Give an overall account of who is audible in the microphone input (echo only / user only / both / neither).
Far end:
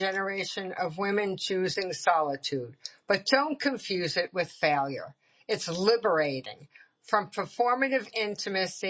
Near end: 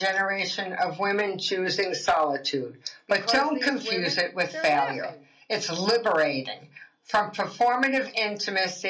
both